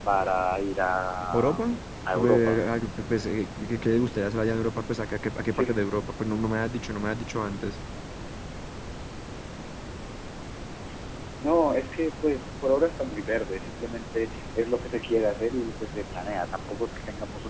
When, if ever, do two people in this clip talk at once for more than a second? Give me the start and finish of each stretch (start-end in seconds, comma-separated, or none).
none